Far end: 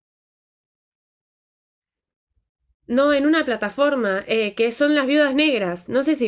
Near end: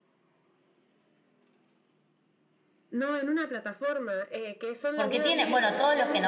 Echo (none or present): present